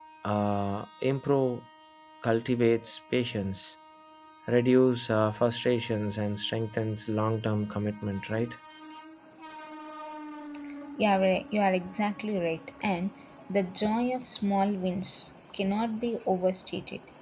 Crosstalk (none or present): none